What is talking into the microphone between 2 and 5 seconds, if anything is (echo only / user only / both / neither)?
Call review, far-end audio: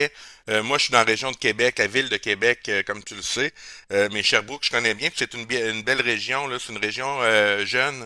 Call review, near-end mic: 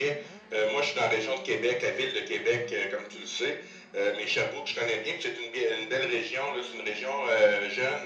echo only